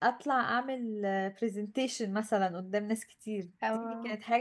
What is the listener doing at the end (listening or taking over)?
listening